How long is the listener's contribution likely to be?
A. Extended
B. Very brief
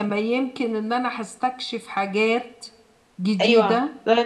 A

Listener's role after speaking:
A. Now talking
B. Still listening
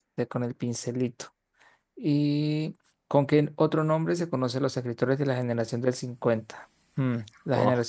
B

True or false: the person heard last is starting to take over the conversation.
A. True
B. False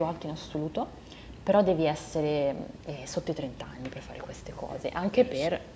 B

